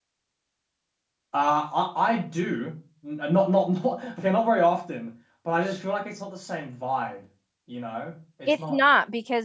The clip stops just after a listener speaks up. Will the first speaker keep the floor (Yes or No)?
No